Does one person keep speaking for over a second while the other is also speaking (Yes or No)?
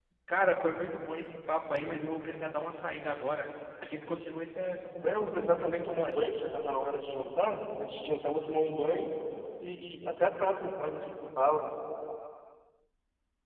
Yes